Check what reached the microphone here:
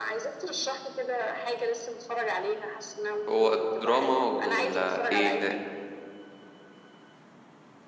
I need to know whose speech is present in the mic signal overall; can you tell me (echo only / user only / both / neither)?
both